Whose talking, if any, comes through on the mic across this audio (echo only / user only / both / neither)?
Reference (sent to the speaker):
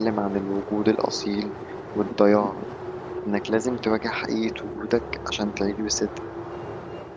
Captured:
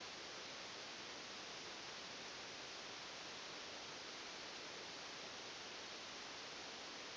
neither